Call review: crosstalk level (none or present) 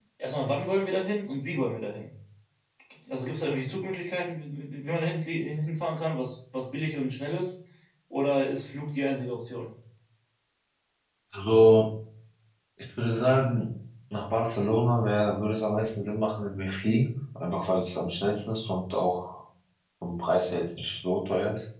none